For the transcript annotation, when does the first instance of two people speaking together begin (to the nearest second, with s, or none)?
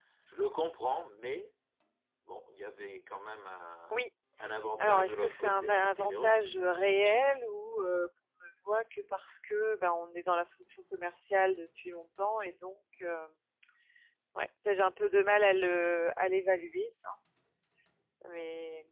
5 s